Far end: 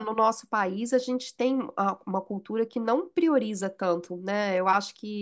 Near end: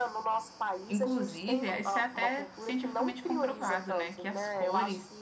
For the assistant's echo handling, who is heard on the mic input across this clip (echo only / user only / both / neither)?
both